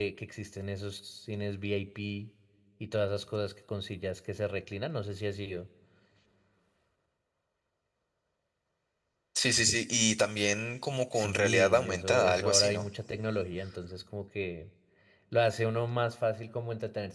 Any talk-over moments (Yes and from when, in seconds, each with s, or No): Yes, from 11.1 s